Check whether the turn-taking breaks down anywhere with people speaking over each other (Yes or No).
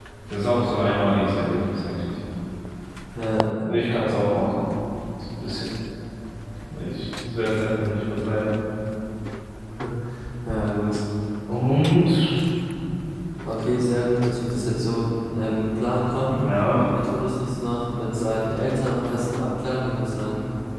No